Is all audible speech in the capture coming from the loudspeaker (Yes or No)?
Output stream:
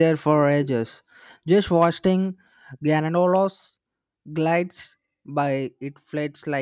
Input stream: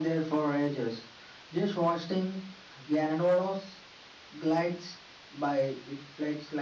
Yes